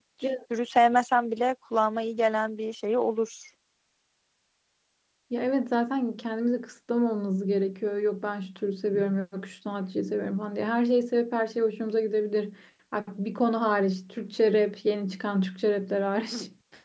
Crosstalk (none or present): none